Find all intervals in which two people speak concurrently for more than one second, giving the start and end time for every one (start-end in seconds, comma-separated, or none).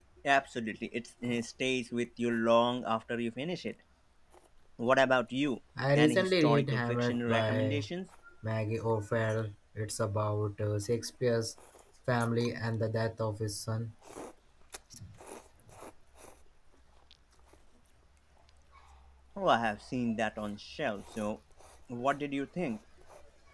6.0-7.9